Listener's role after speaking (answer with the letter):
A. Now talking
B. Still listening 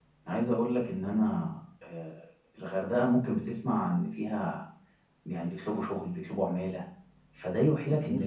B